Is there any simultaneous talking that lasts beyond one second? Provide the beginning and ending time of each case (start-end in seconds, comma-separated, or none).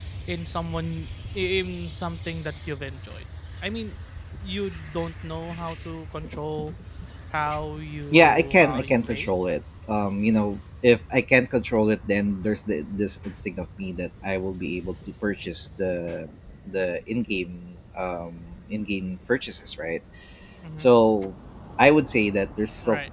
8.1-9.3